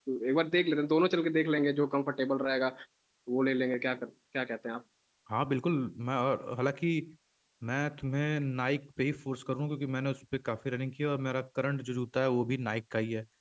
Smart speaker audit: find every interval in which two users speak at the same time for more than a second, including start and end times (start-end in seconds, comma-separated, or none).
none